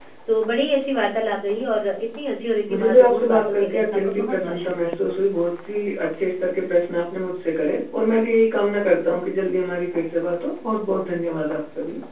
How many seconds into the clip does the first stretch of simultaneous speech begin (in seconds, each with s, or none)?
2.7 s